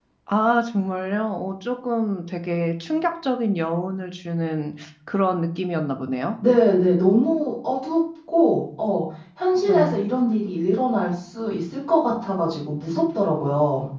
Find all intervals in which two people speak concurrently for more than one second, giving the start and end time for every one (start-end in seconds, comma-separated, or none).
none